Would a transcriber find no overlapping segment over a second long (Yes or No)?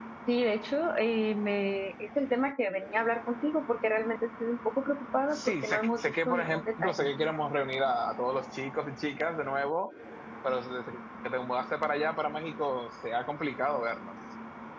No